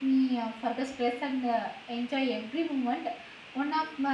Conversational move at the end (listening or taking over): listening